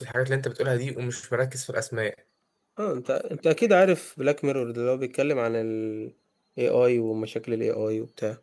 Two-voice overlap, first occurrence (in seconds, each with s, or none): none